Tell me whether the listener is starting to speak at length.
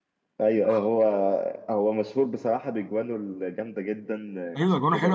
Yes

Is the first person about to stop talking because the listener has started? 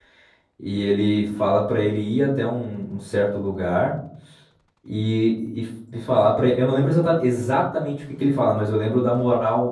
No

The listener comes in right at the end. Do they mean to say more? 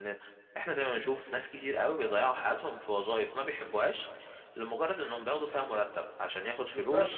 Yes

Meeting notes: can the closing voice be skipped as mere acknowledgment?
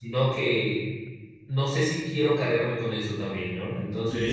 No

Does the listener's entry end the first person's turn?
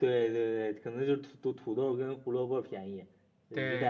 No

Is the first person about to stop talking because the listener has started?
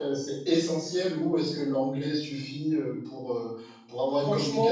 Yes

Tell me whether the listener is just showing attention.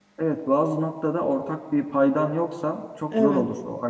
Yes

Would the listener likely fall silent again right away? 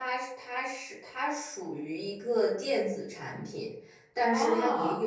Yes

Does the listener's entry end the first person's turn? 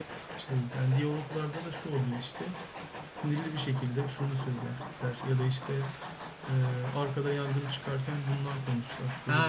Yes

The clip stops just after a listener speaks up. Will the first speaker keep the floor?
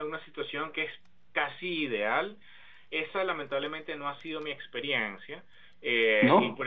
Yes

